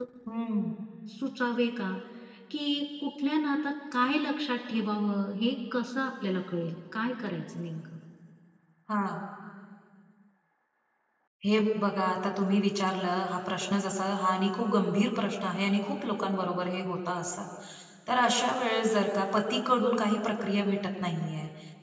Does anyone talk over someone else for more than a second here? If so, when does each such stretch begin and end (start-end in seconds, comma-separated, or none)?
none